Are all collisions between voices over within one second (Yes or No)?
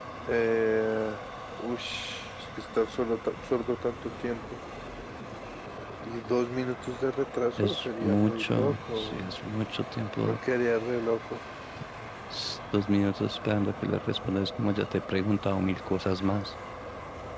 No